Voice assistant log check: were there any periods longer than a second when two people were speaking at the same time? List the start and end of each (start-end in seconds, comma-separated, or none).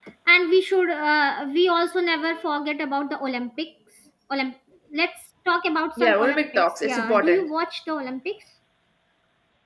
6.0-7.5